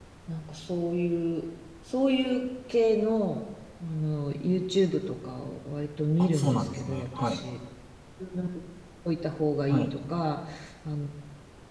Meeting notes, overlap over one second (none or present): present